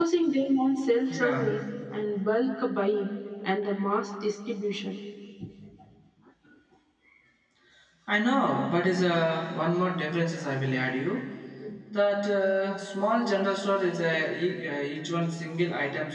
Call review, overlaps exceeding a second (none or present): none